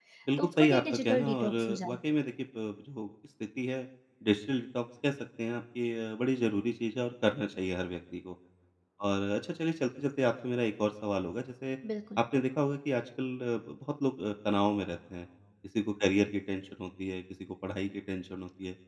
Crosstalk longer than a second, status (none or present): present